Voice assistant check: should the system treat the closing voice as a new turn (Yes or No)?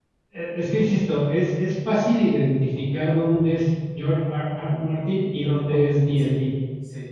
No